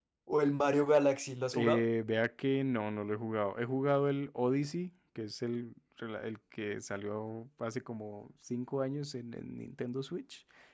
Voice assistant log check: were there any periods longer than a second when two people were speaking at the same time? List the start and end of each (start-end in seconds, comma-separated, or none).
none